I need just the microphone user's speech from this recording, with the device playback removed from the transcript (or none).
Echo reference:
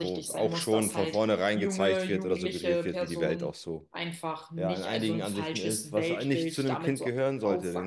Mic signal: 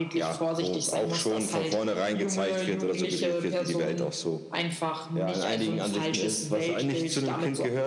none